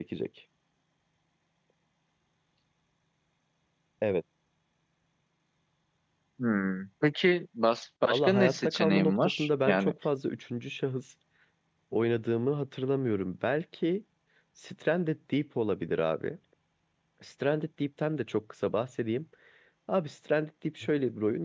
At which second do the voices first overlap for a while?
8.1 s

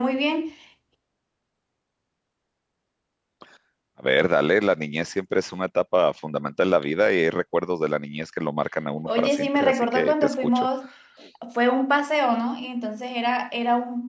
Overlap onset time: 9.1 s

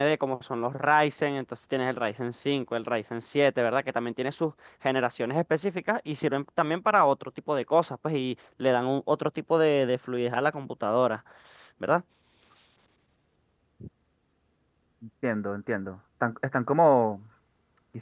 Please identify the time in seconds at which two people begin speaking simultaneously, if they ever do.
none

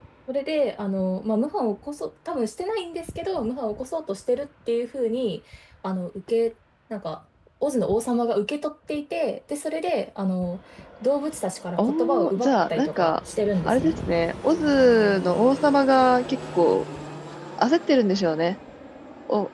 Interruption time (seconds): 11.8 s

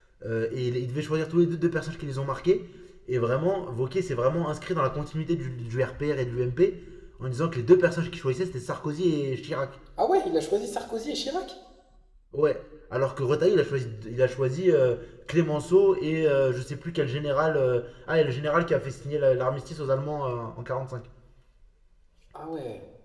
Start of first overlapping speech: none

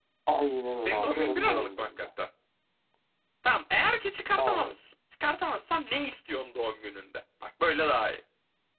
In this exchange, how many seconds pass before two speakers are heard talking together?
0.8 s

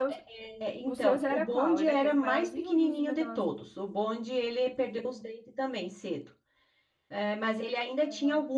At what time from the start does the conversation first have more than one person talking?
0.9 s

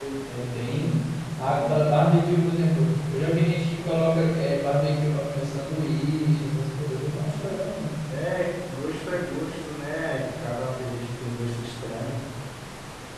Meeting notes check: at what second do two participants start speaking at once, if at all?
none

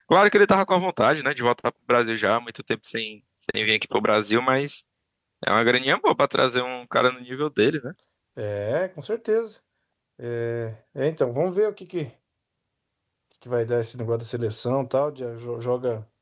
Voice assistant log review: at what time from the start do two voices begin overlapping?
none

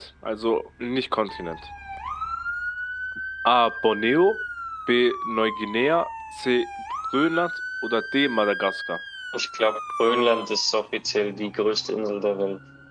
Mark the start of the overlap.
none

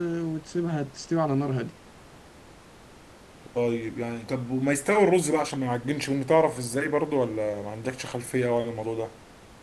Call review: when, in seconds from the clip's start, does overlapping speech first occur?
none

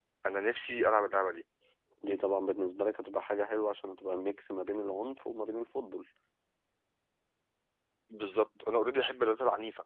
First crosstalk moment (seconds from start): none

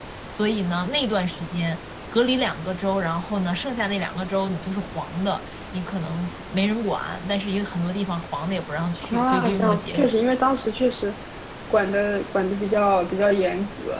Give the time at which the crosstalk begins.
9.0 s

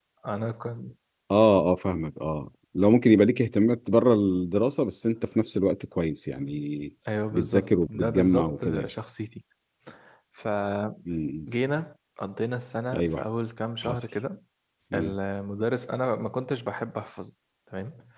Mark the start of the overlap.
7.3 s

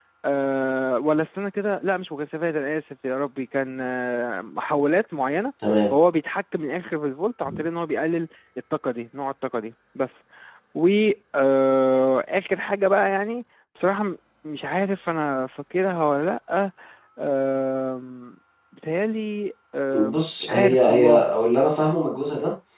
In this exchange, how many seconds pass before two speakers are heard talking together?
19.9 s

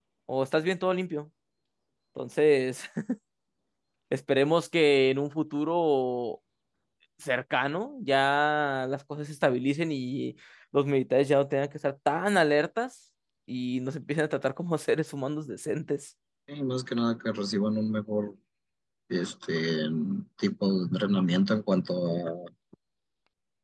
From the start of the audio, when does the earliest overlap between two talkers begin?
none

